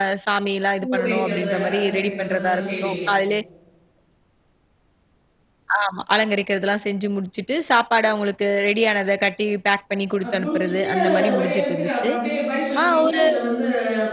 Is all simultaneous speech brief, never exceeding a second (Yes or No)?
No